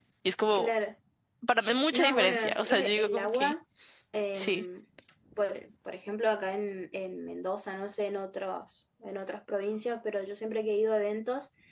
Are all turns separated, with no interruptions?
No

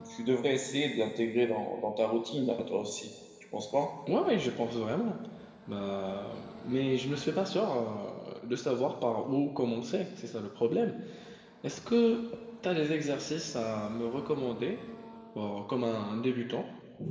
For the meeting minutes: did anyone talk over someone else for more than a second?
No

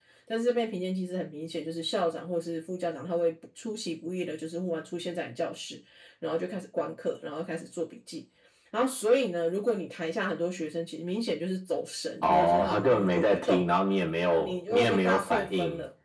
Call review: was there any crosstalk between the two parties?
Yes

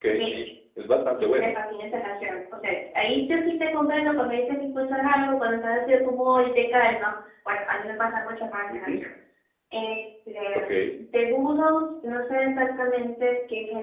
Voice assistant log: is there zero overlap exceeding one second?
Yes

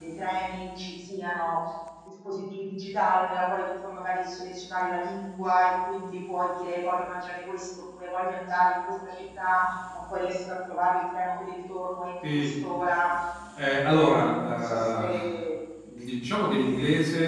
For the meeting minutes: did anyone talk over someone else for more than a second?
Yes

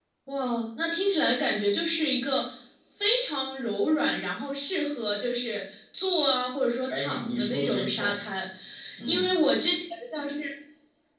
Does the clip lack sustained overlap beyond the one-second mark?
No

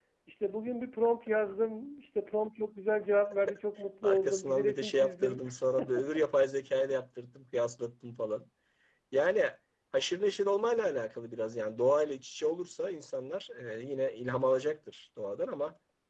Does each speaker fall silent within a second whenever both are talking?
No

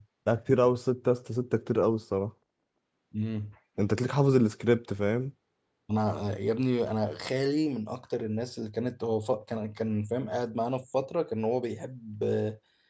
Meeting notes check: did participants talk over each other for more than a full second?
No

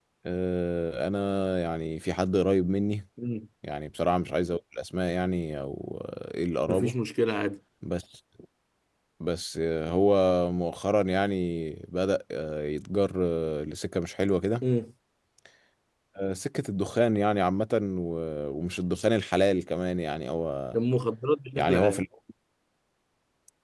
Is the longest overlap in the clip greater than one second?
No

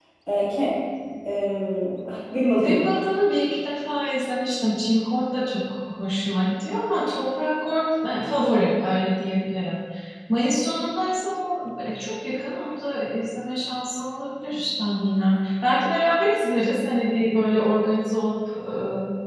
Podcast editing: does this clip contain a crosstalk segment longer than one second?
No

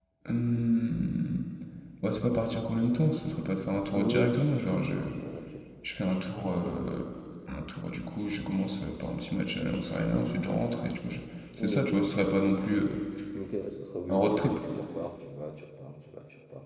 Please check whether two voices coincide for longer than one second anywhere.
No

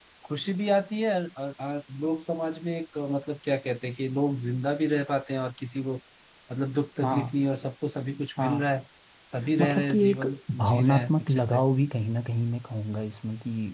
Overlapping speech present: Yes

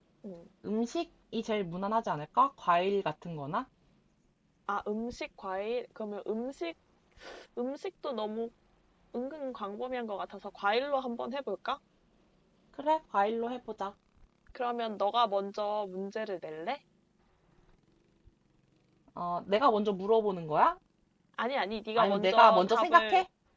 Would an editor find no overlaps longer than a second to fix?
No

